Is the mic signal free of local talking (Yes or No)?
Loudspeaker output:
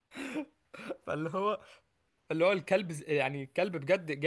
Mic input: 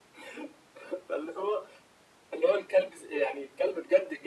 Yes